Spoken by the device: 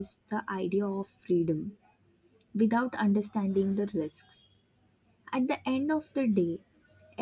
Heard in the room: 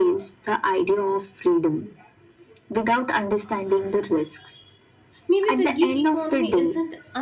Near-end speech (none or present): present